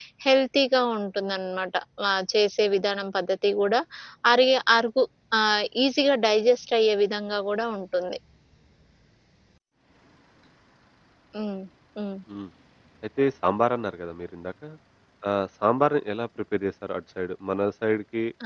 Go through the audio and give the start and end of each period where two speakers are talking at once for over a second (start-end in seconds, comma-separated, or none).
none